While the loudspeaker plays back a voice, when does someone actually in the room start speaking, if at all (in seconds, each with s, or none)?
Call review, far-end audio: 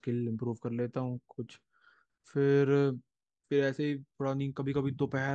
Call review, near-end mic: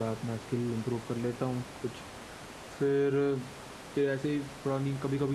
none